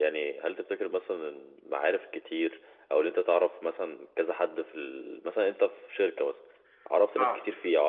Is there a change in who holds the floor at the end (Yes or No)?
No